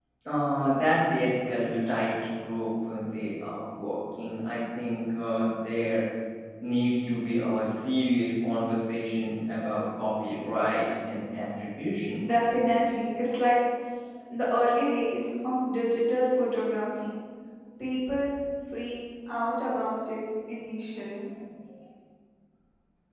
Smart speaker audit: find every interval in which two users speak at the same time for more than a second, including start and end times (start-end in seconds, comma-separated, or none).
none